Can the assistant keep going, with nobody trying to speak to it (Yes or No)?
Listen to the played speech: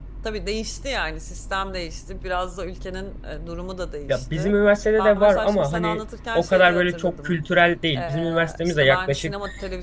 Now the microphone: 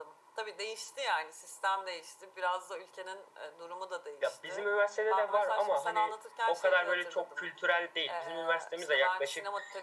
Yes